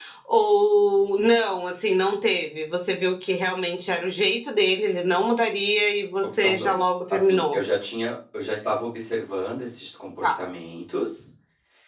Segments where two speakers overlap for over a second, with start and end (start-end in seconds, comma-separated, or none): 6.3-7.6